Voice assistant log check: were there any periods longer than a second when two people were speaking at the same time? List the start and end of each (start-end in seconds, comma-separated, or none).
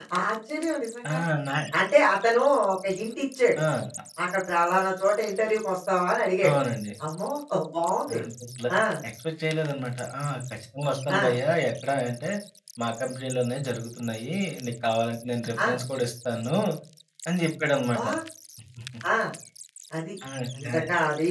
none